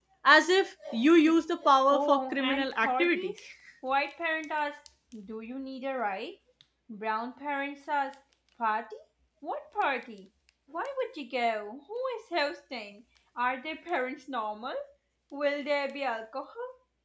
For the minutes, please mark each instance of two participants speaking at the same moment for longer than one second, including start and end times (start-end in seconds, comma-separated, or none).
1.9-3.3